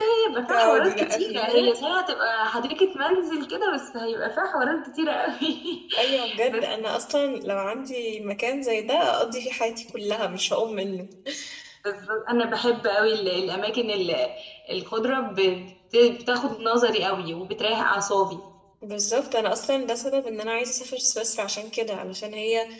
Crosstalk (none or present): present